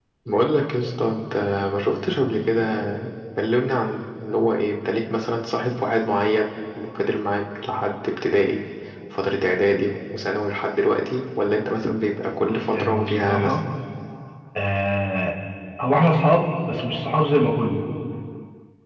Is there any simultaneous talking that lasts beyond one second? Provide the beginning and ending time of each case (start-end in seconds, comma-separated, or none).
12.4-13.6